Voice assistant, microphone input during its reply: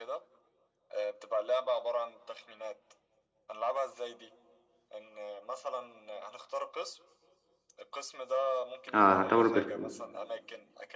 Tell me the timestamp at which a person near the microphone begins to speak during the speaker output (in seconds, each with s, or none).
8.9 s